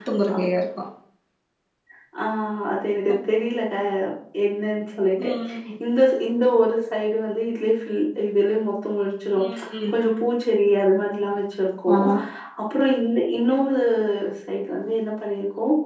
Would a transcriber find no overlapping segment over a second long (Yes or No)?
Yes